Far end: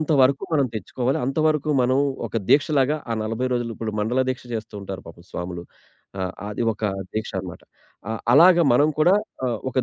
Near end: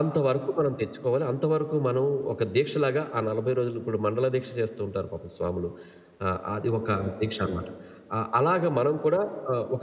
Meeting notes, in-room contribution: none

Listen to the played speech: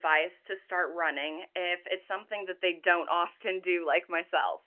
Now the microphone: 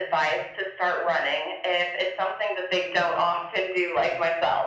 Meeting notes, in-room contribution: none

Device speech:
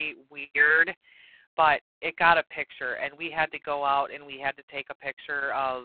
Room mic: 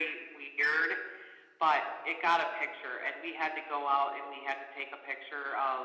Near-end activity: none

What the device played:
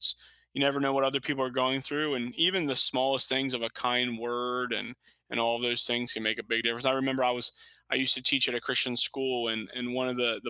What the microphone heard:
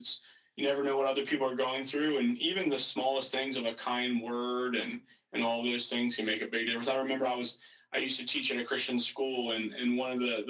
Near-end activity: none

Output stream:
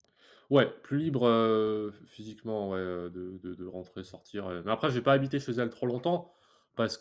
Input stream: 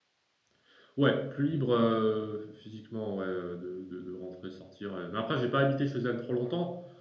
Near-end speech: none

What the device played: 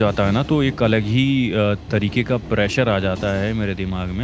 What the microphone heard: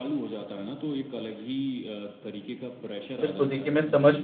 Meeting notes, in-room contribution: present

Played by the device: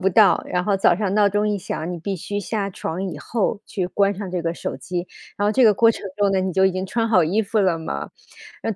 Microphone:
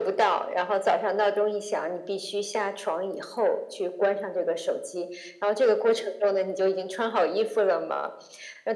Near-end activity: none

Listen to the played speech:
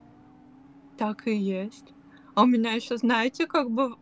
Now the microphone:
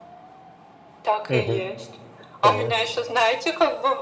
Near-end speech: present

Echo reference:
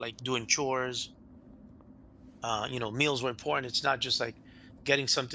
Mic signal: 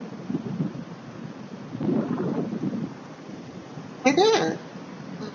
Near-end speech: present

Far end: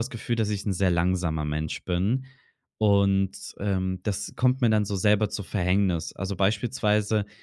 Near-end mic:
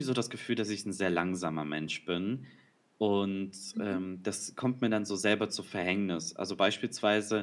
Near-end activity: present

